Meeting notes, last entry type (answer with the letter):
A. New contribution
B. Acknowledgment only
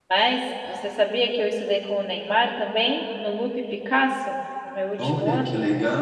A